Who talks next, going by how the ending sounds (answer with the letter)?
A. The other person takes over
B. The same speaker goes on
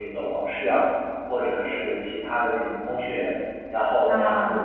B